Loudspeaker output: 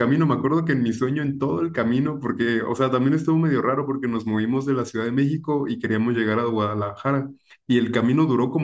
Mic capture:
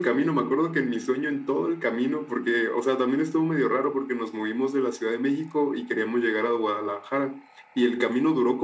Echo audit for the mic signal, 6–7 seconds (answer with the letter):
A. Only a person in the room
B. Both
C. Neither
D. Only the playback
D